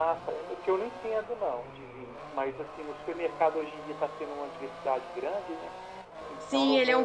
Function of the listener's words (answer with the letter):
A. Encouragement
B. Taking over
B